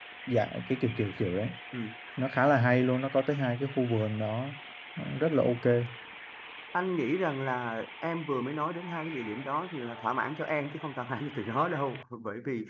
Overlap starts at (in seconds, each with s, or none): none